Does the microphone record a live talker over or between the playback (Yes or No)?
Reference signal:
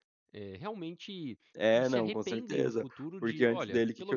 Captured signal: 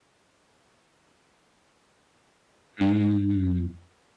Yes